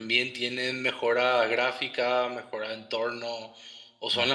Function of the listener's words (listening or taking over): listening